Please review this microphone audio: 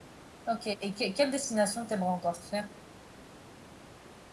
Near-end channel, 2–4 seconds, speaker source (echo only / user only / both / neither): user only